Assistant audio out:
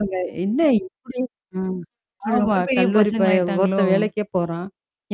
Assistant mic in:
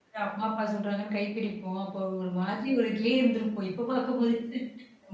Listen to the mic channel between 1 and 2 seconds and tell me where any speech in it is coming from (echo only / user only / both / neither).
user only